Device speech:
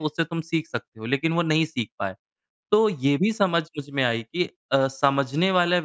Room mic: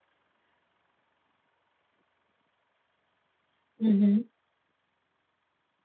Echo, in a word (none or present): none